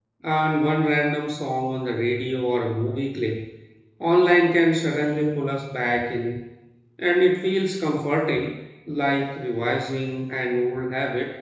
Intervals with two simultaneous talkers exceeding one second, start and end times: none

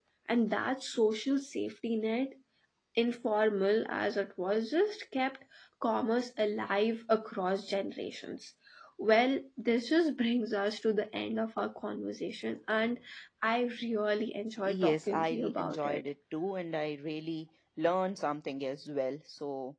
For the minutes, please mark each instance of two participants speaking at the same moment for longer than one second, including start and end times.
14.7-16.0

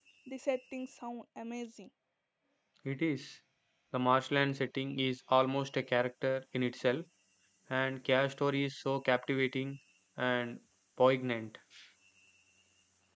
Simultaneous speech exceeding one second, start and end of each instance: none

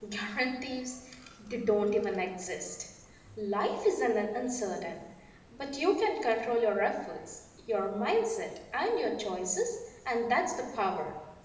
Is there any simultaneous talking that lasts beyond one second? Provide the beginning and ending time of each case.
none

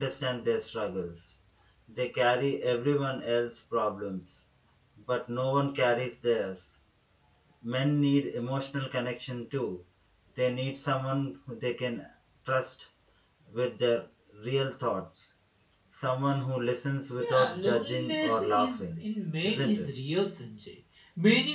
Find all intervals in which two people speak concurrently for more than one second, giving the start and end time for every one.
17.2-19.0

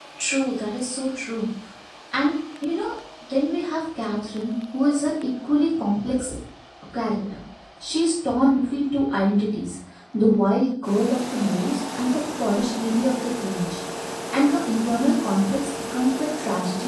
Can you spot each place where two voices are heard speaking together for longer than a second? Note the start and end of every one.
none

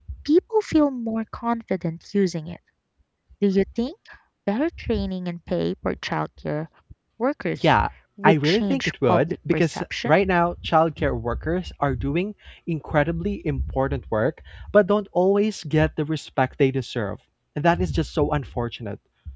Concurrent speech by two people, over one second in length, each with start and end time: 8.2-10.2

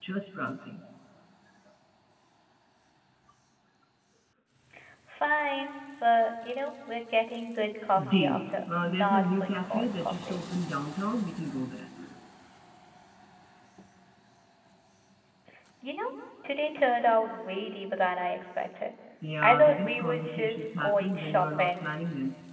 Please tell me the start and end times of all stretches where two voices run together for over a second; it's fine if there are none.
8.1-10.4, 19.4-21.9

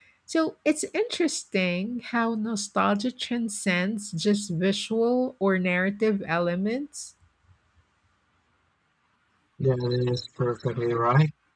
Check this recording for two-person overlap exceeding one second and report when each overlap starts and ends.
none

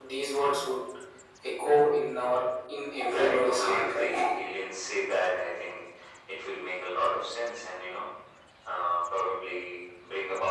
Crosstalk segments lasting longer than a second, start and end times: 3.0-4.3

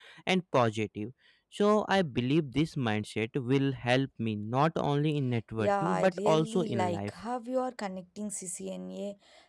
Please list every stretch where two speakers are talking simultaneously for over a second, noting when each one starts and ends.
5.6-7.1

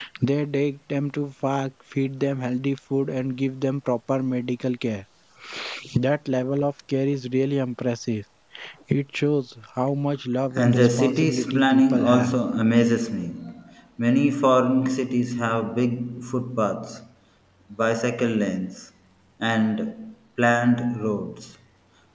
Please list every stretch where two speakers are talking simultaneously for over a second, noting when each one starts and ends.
10.5-12.3

